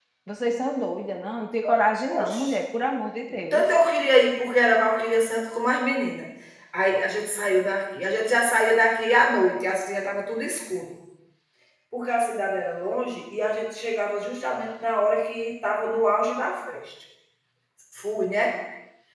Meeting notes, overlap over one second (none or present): none